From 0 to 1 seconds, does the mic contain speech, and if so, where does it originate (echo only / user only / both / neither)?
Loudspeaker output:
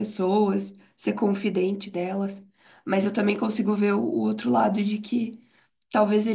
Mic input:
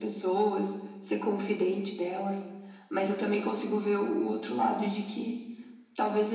echo only